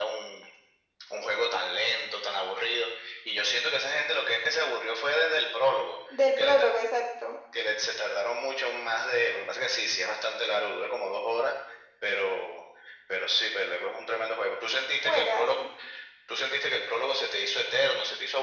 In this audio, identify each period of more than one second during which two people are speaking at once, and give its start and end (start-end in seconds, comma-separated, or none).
none